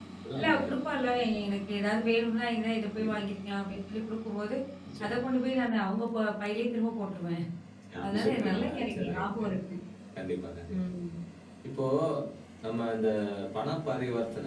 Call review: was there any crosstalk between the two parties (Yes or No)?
Yes